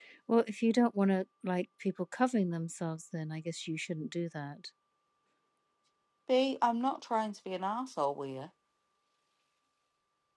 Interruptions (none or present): none